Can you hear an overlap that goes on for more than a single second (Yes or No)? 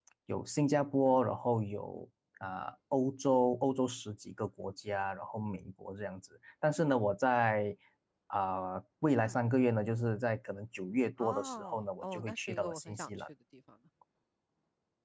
Yes